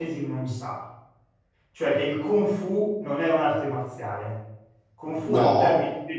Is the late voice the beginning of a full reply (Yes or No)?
No